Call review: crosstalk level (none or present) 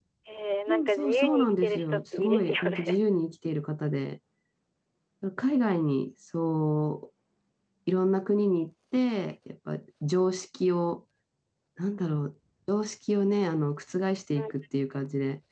present